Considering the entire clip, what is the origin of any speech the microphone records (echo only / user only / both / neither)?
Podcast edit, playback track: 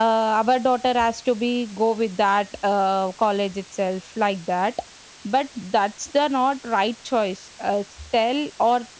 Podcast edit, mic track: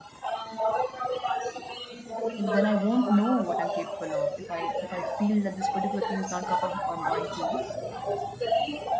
both